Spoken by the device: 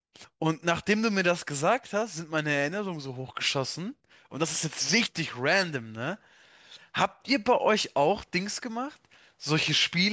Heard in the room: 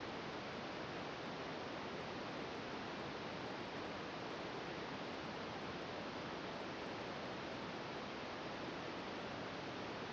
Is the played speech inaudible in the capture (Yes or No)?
Yes